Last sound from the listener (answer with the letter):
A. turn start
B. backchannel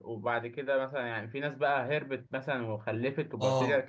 A